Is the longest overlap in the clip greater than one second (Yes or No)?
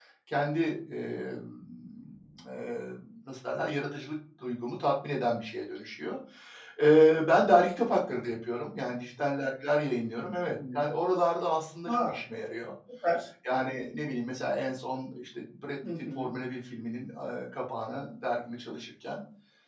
No